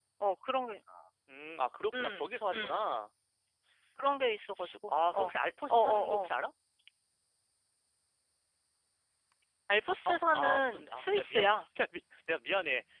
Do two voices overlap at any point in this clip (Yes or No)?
Yes